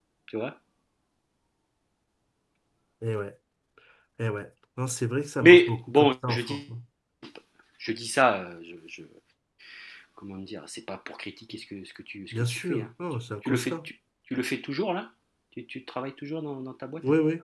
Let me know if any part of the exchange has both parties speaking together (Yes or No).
Yes